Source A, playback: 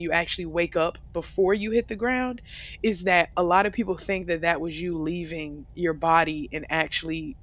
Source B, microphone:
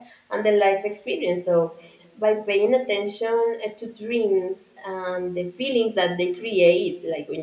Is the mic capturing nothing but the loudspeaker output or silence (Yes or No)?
No